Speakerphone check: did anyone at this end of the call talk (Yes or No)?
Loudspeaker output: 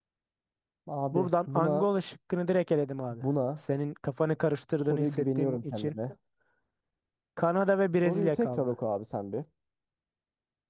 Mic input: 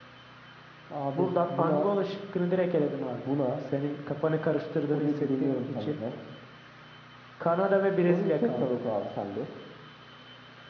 No